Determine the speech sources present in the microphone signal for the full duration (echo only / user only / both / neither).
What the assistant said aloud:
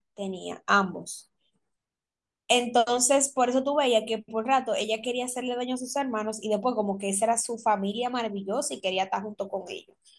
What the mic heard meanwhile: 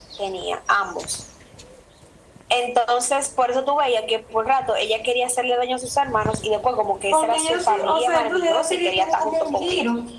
both